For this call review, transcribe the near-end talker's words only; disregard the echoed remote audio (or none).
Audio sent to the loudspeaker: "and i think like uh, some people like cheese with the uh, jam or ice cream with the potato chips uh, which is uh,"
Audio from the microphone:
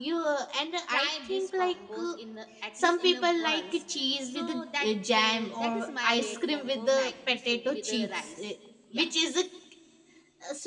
try this combos in a, at least in a once so that uh, that is my weight combo maggie soup with the rice yeah